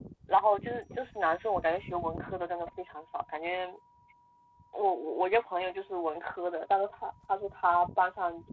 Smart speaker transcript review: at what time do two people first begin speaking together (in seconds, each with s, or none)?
none